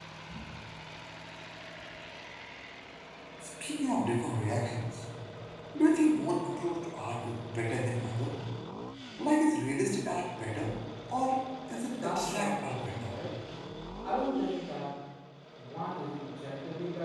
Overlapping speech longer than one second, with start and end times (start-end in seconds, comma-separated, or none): 11.9-13.1